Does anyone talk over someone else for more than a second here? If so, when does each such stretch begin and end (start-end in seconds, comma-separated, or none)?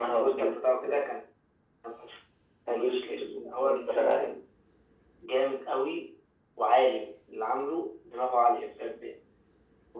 2.7-4.3